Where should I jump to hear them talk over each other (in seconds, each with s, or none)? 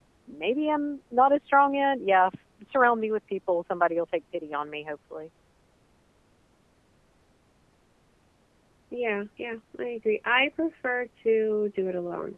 none